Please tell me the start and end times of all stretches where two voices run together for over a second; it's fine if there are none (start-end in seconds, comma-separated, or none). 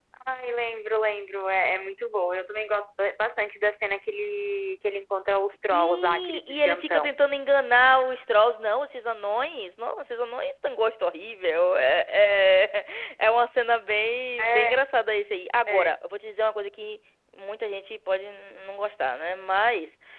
5.7-7.1